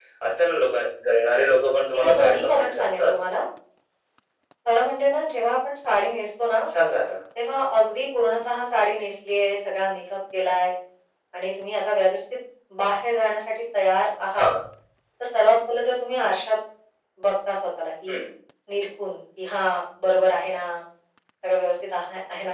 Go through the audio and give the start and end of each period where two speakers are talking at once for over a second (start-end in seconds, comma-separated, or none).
1.9-3.1